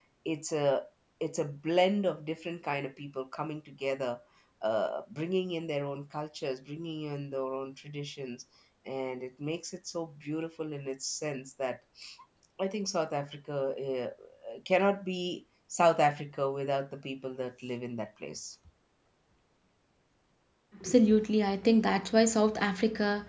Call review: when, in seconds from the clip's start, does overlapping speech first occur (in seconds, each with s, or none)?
none